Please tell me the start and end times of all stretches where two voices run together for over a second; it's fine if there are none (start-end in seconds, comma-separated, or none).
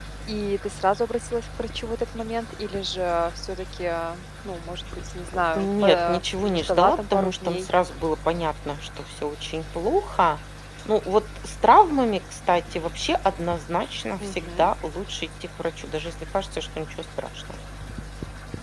5.5-7.7